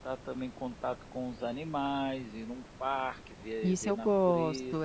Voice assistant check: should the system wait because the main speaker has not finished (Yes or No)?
No